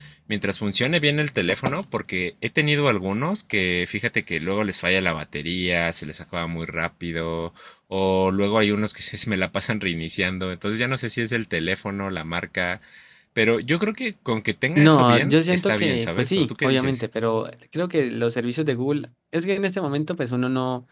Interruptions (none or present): present